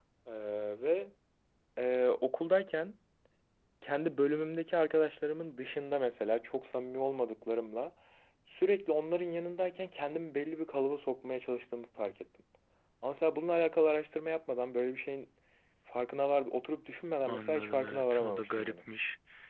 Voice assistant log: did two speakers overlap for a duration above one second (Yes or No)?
Yes